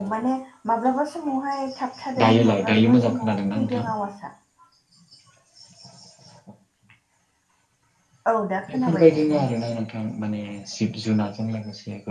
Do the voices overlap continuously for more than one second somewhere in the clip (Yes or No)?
Yes